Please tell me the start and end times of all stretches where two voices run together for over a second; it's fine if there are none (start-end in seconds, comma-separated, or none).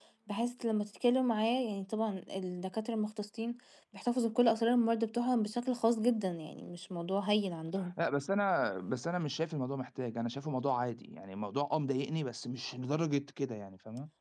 none